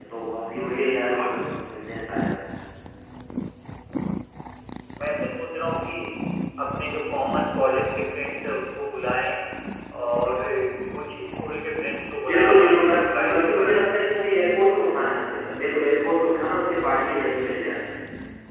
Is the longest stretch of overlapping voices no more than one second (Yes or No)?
No